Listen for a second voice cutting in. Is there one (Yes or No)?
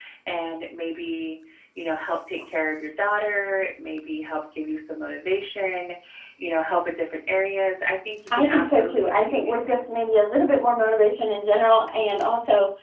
Yes